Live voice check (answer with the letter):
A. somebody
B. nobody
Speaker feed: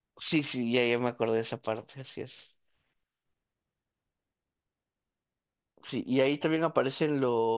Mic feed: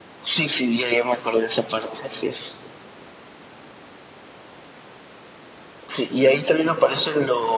B